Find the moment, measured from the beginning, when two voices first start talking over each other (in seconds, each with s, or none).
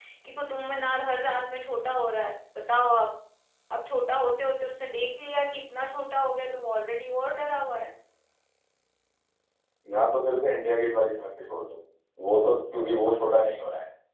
none